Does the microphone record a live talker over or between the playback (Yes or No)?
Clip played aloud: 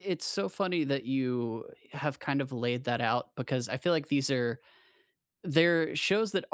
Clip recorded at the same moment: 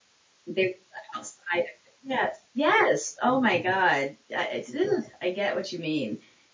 Yes